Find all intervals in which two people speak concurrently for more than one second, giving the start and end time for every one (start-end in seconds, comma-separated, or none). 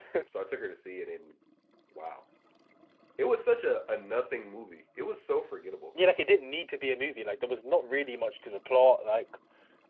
none